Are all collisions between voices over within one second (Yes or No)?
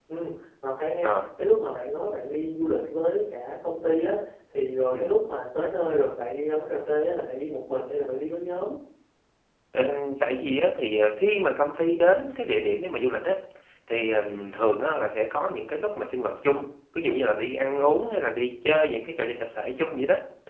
Yes